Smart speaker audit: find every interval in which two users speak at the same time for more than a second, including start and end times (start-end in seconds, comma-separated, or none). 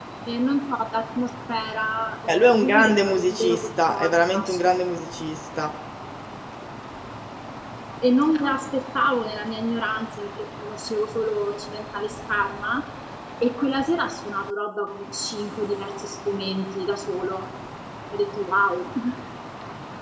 2.3-4.6